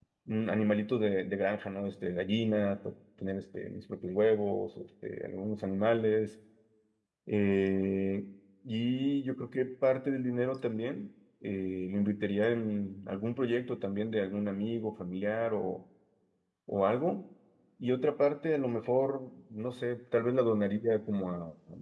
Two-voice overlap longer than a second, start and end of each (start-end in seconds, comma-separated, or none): none